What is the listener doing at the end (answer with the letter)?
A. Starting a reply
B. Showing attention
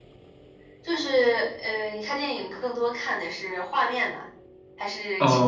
A